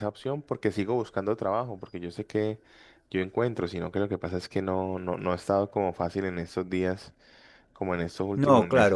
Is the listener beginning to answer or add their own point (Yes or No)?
No